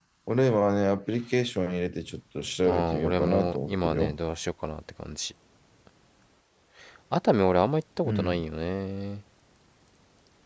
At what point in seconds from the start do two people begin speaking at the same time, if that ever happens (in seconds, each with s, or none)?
2.6 s